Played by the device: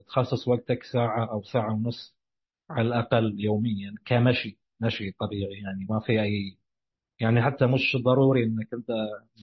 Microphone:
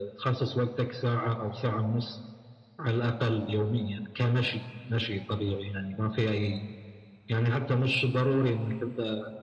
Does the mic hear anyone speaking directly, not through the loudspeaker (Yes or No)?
No